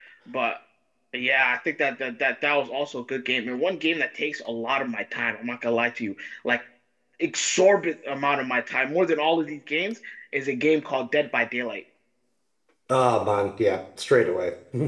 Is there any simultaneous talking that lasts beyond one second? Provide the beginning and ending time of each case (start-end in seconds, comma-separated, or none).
none